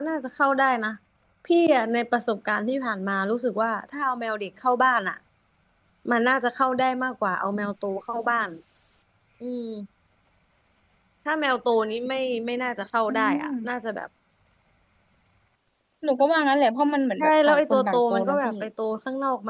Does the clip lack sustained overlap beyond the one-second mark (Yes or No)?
No